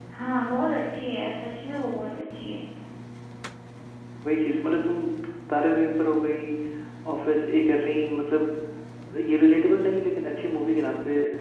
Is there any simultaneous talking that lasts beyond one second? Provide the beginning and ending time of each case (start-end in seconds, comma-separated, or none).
none